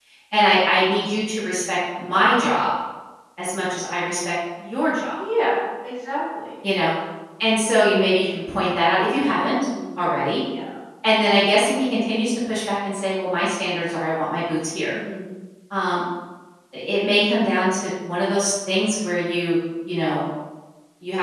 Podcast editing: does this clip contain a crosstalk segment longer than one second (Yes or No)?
No